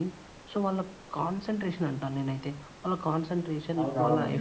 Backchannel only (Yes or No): Yes